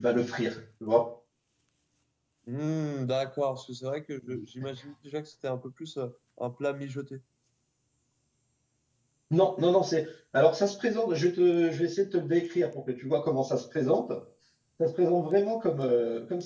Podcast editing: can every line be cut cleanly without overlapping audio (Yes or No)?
Yes